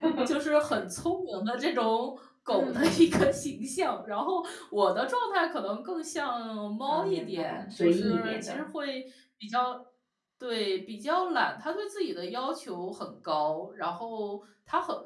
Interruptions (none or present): present